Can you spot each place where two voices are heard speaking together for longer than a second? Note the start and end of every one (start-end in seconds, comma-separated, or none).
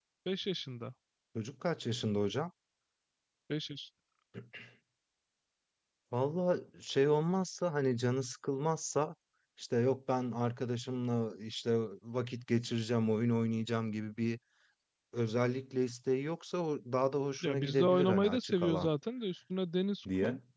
17.4-18.9